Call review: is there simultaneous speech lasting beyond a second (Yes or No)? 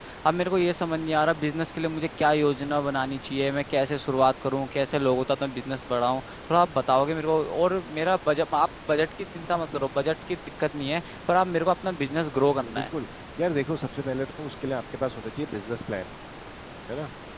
No